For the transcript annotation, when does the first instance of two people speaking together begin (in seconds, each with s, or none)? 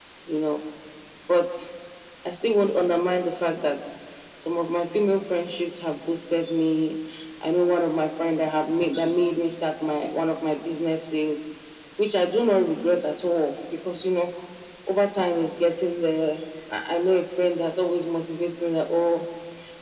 none